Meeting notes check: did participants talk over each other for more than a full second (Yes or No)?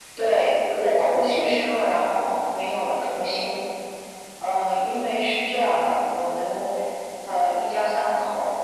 No